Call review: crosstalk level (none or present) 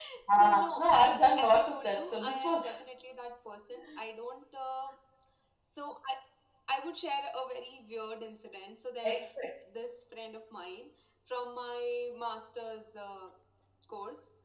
present